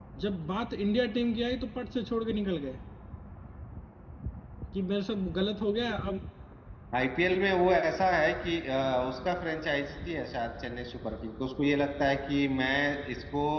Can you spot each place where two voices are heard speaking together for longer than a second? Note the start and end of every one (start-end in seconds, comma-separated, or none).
none